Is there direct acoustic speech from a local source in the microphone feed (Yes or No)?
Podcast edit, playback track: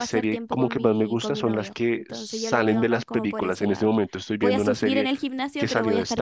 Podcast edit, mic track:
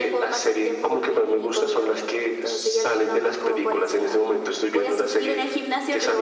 No